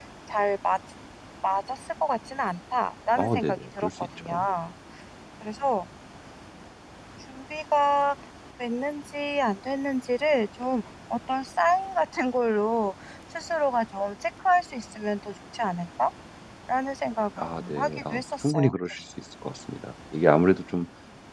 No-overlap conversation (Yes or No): No